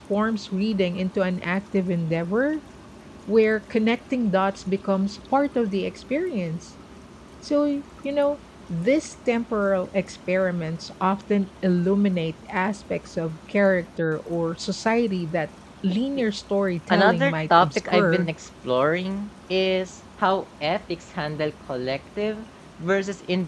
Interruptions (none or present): present